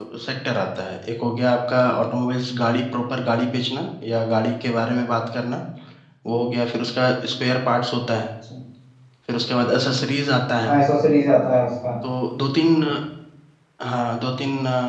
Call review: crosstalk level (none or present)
none